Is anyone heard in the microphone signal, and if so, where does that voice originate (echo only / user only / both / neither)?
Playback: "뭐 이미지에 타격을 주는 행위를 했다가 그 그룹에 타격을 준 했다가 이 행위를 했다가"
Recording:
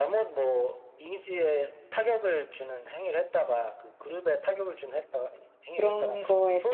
both